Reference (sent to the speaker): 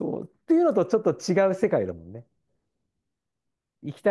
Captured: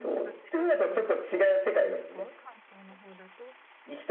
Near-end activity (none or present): present